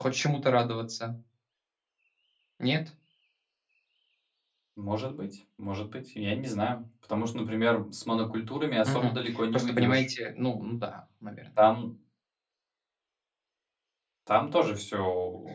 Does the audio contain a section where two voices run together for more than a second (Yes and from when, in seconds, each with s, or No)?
Yes, from 8.8 s